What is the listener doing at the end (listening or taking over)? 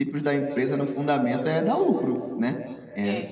listening